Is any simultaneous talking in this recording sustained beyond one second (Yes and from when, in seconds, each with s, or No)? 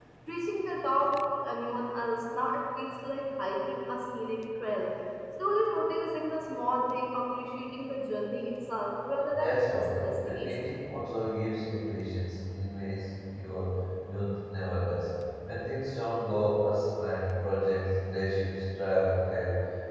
Yes, from 9.3 s